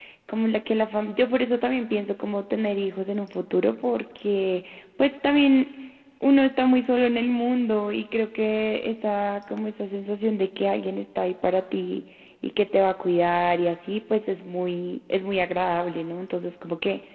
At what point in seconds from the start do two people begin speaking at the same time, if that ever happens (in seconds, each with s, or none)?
none